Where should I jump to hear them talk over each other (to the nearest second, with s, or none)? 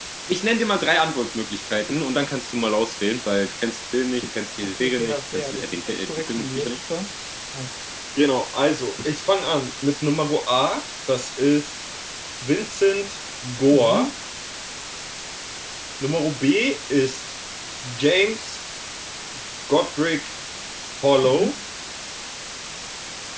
5 s